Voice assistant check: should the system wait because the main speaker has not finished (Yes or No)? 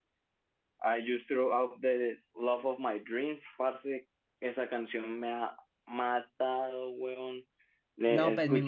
No